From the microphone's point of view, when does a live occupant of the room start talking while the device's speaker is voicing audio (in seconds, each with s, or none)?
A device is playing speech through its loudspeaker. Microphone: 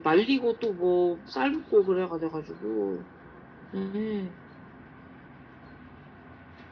none